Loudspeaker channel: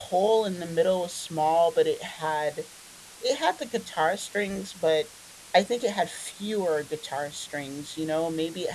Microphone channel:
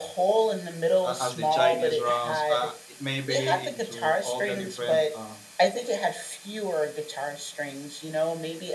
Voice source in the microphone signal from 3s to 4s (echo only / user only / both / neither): both